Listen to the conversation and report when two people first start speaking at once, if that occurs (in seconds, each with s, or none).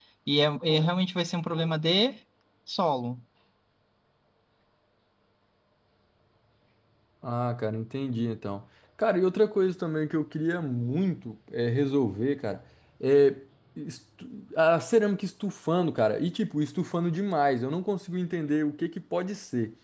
none